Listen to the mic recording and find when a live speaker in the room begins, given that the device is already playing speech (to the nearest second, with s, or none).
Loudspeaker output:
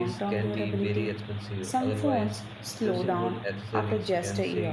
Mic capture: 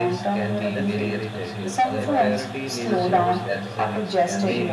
1 s